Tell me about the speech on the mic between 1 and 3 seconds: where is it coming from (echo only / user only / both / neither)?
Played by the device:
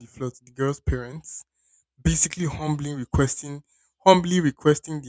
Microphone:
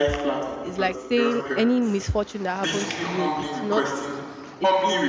both